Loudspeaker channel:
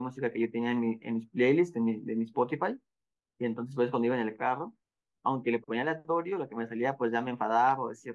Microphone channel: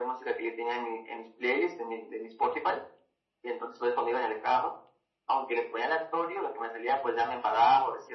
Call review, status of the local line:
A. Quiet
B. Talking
A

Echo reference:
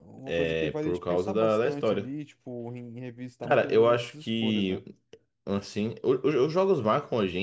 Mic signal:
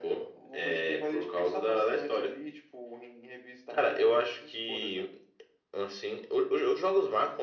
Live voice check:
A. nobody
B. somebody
A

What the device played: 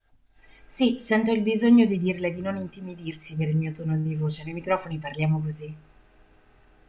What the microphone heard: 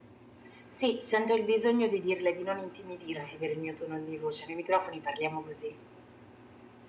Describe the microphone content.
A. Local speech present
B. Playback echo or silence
A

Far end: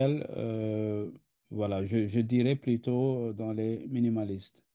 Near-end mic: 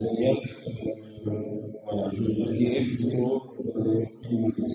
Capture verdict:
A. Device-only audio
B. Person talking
A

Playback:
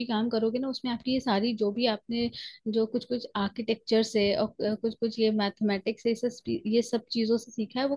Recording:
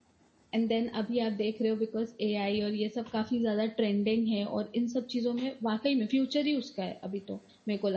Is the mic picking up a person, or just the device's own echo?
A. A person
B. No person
A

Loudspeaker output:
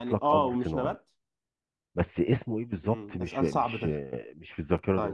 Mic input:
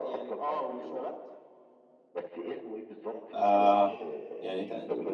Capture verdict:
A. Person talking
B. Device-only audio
A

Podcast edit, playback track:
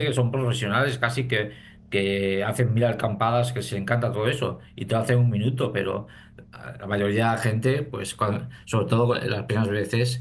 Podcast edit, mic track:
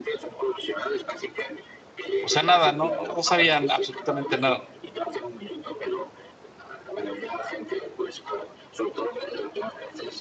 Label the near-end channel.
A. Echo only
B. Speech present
B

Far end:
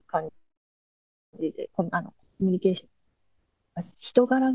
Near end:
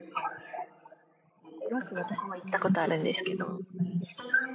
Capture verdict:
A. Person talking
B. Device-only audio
A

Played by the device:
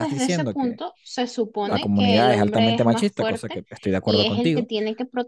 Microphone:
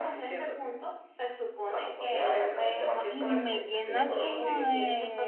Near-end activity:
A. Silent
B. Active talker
B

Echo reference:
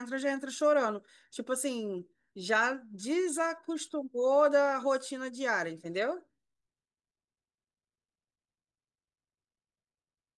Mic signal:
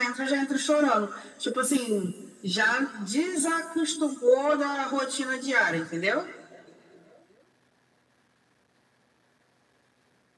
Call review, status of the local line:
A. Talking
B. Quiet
B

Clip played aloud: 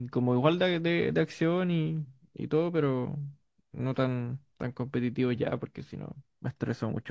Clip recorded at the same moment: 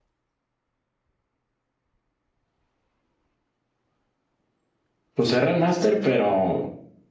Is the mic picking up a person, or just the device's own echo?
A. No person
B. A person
B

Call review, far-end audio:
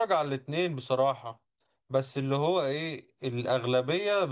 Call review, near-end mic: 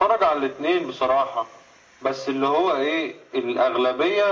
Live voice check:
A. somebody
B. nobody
B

